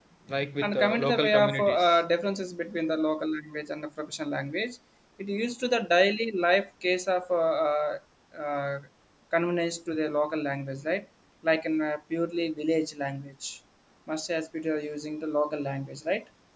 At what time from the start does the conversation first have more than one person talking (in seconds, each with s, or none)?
0.6 s